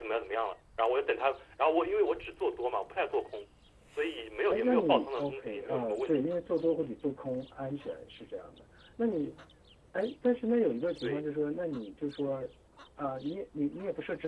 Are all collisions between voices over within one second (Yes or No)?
No